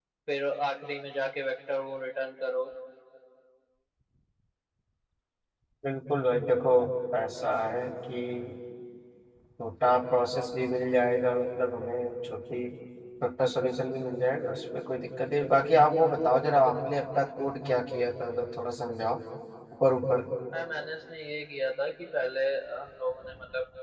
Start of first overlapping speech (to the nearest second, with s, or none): none